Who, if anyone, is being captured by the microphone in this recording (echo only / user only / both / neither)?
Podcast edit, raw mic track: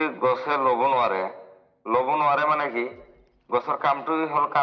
echo only